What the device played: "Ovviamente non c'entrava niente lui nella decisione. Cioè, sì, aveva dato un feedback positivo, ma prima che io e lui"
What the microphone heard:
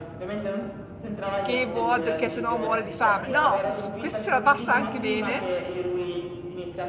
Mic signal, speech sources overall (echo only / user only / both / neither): both